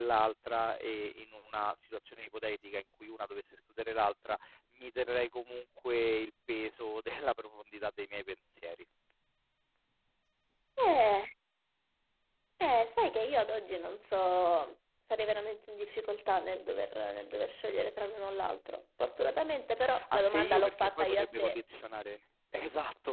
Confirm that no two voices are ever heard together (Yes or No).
No